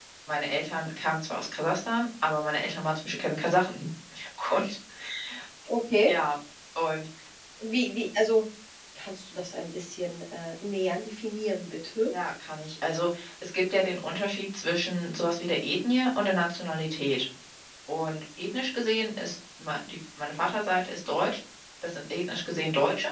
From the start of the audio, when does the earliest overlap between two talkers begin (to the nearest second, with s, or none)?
none